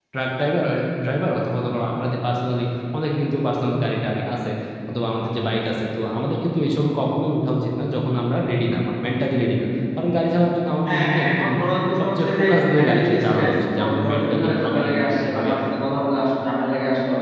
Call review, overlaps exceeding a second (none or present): present